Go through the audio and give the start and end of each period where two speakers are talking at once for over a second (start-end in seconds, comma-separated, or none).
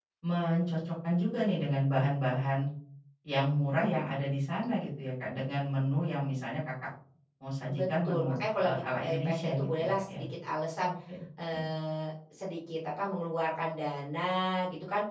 7.7-10.2